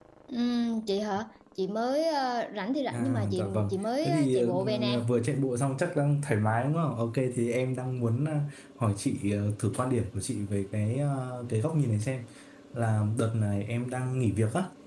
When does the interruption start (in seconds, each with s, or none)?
2.9 s